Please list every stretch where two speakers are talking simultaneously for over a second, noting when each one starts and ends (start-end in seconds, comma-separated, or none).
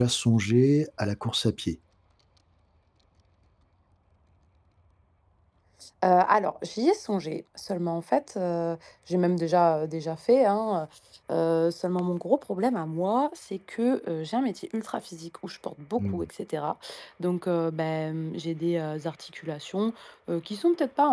none